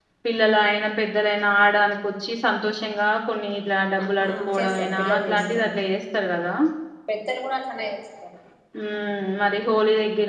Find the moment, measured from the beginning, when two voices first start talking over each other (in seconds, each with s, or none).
4.0 s